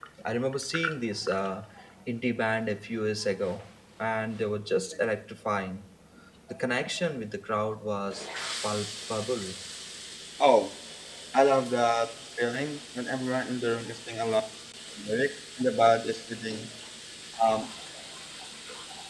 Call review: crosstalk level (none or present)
none